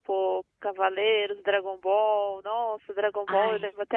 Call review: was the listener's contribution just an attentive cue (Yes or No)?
Yes